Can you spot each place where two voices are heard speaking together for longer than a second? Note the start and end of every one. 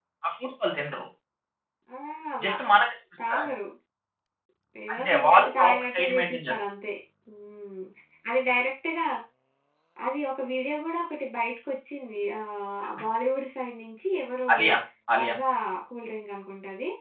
4.9-6.5

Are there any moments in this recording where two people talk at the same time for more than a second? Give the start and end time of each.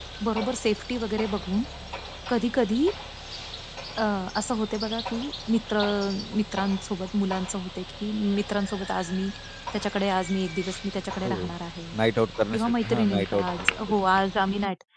12.5-13.8

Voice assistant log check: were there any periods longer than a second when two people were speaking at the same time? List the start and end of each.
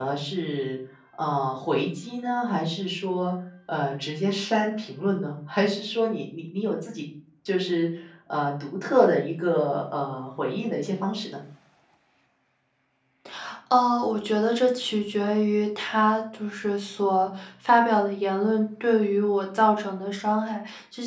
none

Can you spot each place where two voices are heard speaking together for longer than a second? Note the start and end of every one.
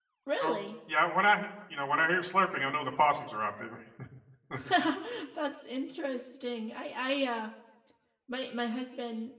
none

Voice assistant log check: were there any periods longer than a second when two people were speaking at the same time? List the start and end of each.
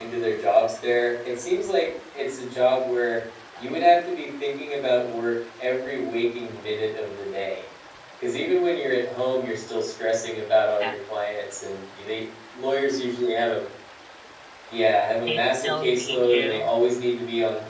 15.3-16.7

